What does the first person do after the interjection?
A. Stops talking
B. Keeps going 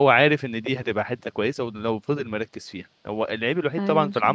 B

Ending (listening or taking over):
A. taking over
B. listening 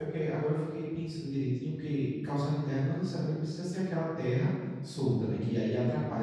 B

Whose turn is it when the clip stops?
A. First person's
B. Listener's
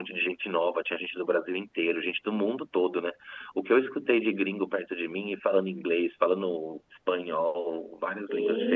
B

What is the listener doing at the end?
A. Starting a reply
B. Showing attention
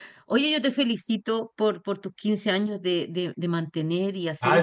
A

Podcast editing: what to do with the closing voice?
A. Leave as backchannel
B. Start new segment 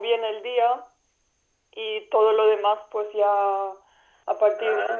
A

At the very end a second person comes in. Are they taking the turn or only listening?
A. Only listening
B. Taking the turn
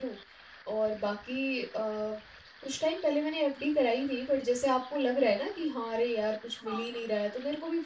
A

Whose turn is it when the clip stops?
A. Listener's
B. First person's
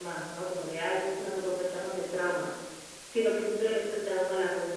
B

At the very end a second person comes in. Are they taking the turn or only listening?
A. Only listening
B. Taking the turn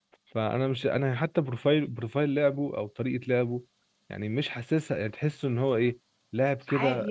A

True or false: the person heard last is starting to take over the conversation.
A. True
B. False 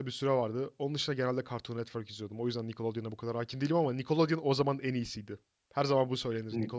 A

